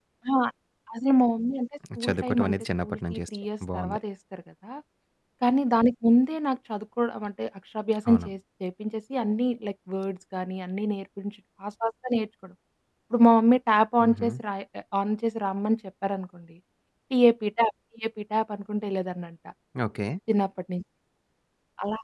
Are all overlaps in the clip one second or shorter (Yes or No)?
No